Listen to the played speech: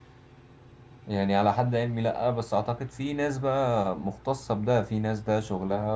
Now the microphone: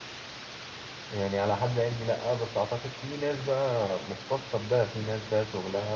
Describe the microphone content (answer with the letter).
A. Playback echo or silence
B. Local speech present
A